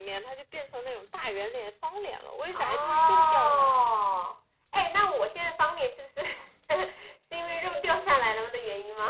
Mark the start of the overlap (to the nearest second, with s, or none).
3 s